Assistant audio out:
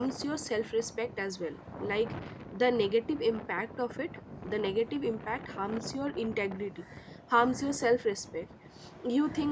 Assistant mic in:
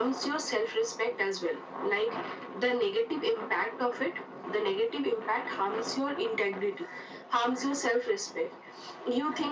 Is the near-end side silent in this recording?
Yes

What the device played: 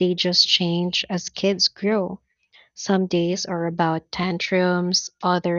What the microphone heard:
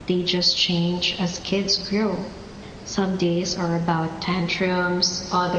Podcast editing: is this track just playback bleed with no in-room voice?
Yes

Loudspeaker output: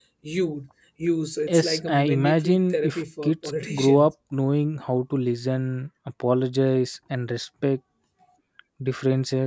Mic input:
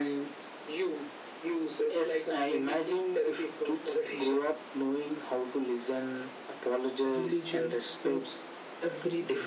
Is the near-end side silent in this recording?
No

